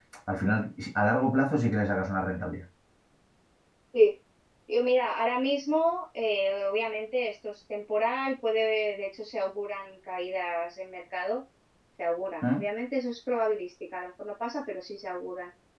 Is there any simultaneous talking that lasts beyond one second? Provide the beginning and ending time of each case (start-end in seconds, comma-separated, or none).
none